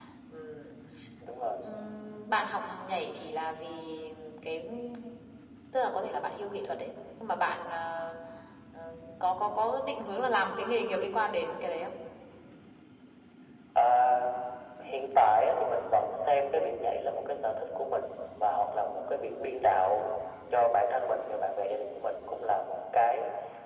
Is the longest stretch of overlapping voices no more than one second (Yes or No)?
Yes